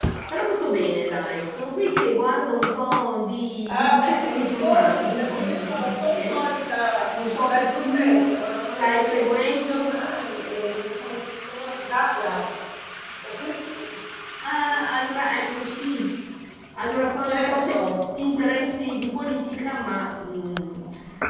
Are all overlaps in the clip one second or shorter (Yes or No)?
No